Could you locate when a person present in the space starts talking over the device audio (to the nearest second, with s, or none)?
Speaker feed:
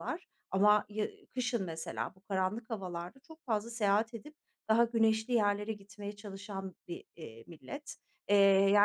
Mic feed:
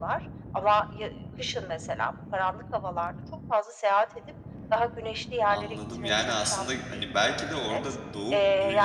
5 s